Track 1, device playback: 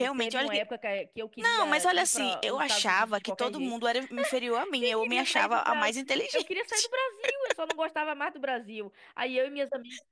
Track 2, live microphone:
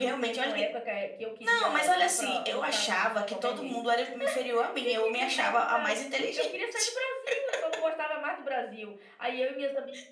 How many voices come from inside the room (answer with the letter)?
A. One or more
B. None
B